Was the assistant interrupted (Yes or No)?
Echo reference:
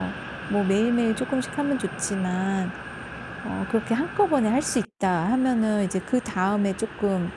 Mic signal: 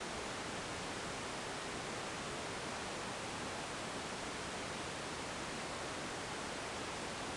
No